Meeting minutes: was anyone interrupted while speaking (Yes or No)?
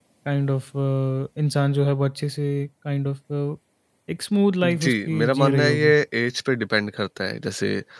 Yes